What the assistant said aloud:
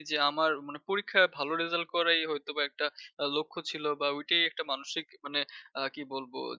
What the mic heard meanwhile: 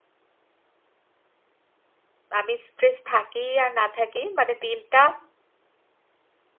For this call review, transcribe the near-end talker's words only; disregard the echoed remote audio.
আমি স্ট্রেস থাকি আর না থাকি মানে দিনটা

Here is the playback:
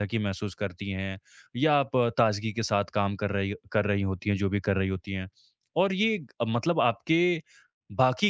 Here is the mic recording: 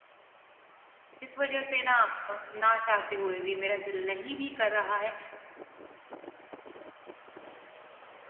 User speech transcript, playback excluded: जिस वजह से ना अ, ना चाहते हुए भी मेरा दिल नहीं भी कर रहा है,

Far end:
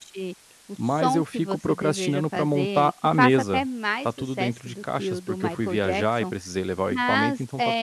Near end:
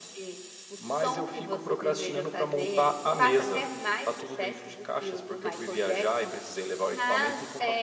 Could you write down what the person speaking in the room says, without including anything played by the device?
none

